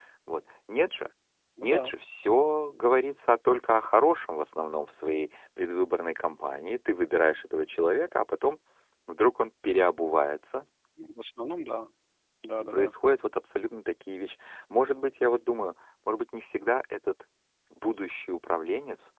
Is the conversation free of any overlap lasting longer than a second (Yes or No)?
Yes